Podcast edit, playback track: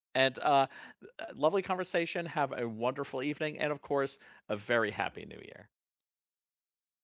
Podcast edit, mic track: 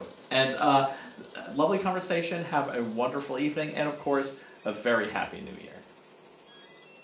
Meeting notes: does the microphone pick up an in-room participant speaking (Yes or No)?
No